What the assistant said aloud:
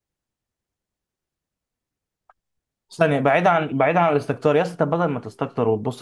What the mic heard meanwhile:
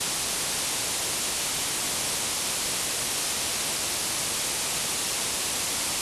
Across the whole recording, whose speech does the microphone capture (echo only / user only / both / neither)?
neither